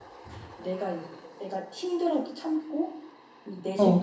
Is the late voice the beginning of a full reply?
No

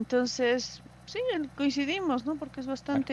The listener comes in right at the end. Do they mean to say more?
No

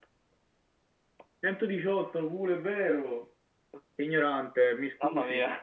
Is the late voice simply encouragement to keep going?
No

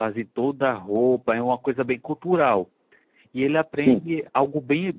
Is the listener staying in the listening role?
Yes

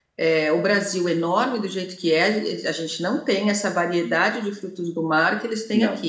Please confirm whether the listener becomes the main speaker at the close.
No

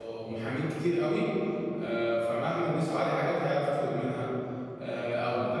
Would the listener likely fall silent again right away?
Yes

